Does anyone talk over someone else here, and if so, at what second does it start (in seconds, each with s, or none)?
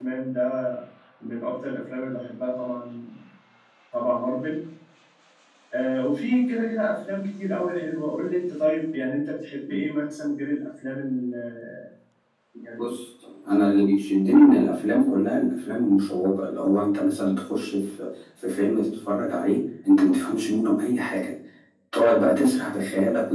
none